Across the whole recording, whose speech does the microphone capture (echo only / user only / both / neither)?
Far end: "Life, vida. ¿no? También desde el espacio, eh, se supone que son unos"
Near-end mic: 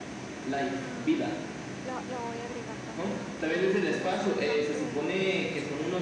both